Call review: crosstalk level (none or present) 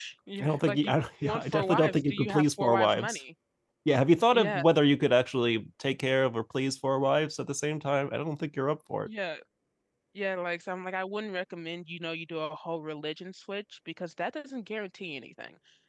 present